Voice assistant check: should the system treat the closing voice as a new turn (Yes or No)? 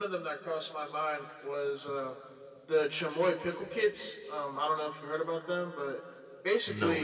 No